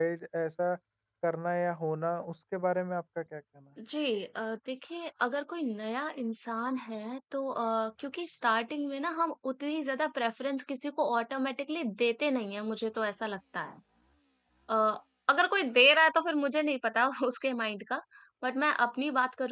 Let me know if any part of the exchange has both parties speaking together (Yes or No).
No